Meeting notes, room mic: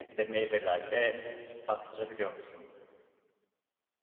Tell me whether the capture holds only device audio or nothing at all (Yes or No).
No